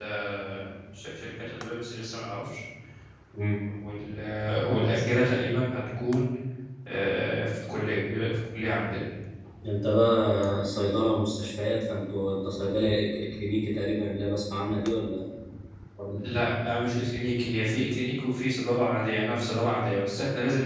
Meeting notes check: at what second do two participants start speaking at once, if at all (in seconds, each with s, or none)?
none